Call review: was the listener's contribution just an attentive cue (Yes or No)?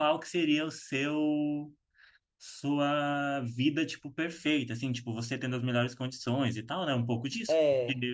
Yes